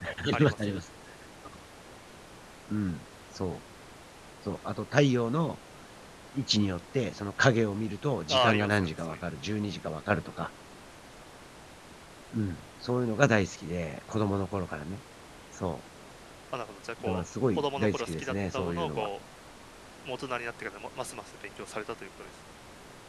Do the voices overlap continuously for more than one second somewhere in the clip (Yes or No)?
Yes